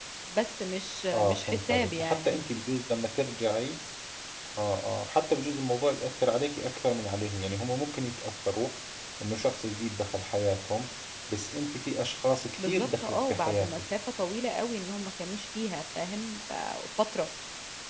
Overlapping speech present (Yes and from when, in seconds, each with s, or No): Yes, from 1.1 s